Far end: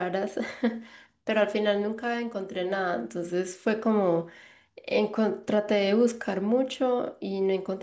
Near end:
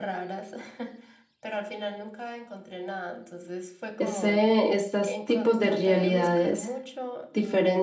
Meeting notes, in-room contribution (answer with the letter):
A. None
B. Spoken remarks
B